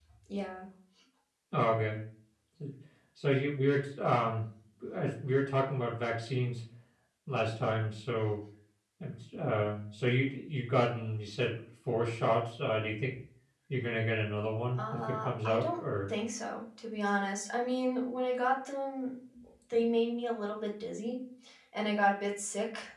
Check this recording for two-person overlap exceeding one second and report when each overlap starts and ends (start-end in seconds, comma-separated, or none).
14.8-16.1